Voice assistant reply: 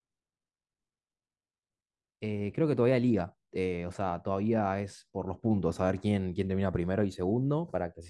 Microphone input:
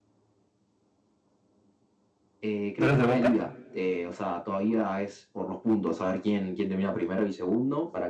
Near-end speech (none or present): present